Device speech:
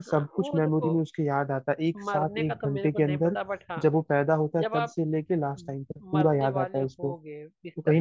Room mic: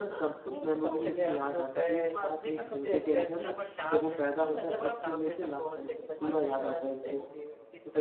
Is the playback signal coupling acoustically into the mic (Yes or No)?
Yes